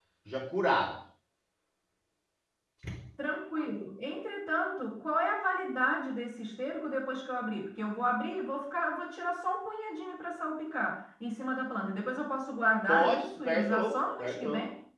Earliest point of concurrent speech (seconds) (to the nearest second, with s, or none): 13 s